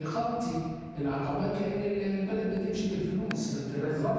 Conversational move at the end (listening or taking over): taking over